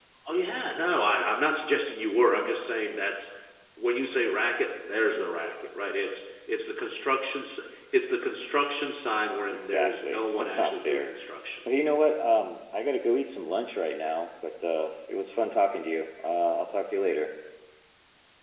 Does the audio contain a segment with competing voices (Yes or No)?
Yes